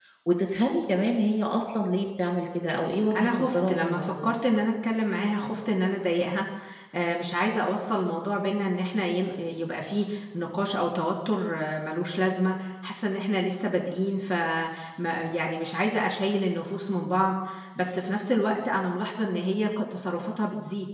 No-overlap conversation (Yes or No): No